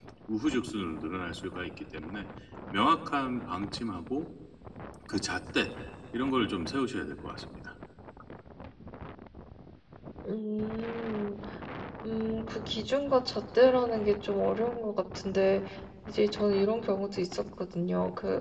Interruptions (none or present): none